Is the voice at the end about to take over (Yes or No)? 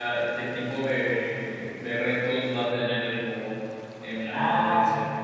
Yes